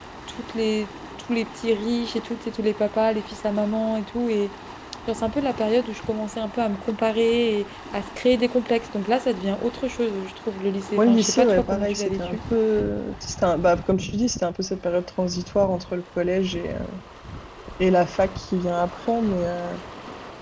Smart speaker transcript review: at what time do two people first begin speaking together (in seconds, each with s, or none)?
11.0 s